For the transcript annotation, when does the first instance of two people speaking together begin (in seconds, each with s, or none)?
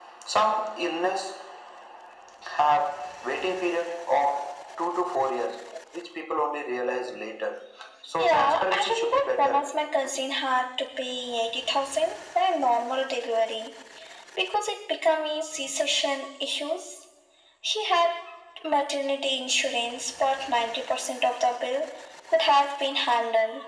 8.2 s